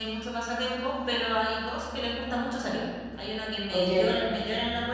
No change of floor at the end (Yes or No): Yes